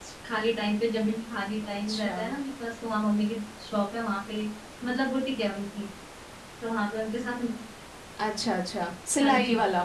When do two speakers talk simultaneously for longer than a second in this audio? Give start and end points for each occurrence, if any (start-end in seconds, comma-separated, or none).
none